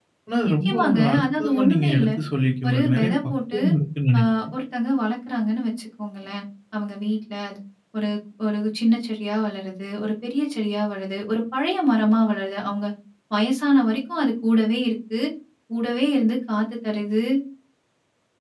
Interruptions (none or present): present